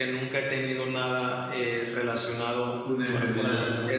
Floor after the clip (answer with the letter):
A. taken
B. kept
A